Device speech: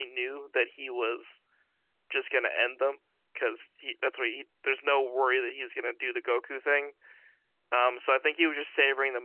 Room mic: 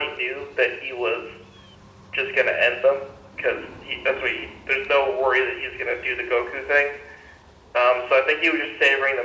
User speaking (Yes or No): No